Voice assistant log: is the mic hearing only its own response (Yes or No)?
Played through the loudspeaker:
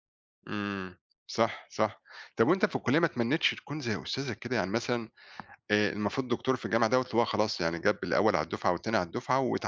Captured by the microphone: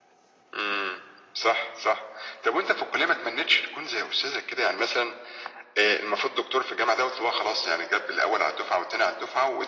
Yes